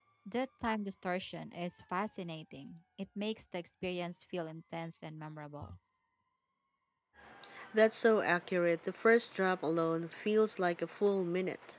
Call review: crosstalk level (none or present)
none